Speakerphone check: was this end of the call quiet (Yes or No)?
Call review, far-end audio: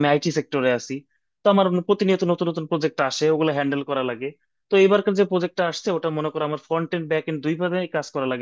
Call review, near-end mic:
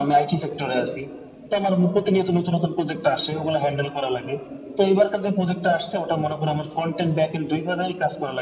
Yes